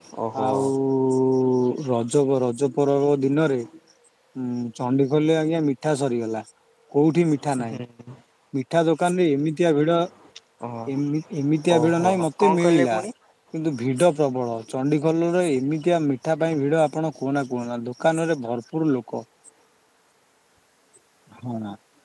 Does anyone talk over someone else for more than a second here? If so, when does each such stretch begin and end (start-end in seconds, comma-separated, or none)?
11.8-13.0